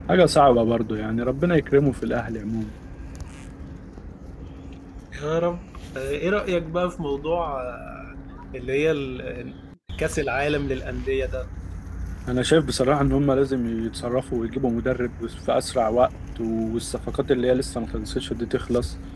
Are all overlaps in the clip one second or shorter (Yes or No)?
Yes